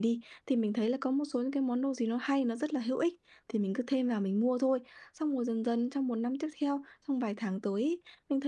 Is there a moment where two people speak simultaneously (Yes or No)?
No